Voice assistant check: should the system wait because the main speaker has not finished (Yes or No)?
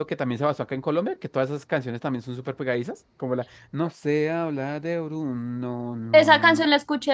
No